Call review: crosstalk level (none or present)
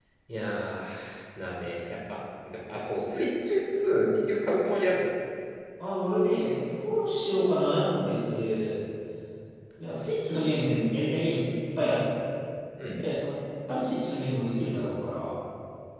none